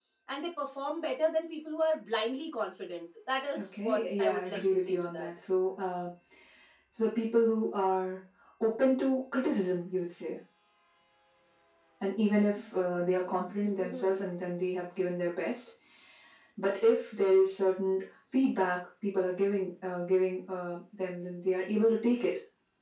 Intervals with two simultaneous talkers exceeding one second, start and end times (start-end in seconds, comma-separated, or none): 3.6-5.3